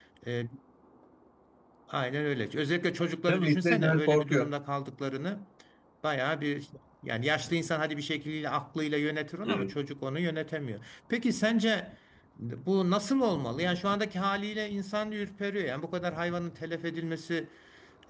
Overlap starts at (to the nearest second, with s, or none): 3 s